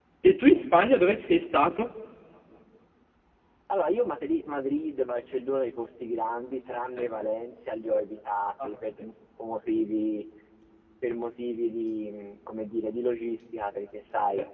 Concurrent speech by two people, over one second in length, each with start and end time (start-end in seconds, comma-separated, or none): none